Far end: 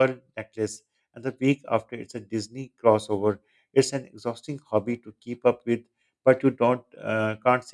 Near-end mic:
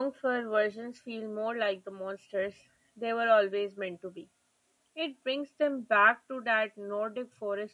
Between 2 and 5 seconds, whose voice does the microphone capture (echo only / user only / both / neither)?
user only